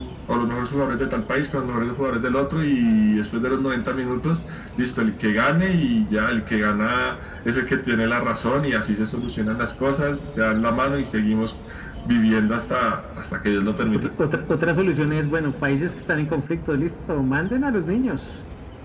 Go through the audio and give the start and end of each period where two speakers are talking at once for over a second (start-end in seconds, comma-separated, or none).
none